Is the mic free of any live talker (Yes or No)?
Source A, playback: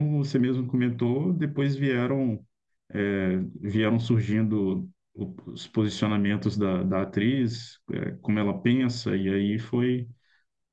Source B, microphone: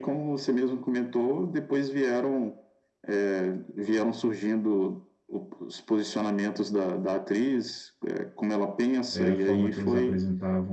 No